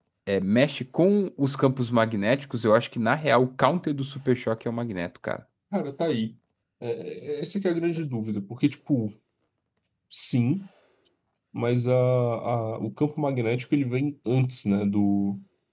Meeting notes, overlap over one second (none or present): none